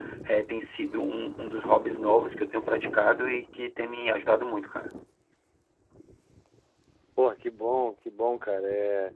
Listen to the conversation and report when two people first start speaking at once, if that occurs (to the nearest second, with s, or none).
none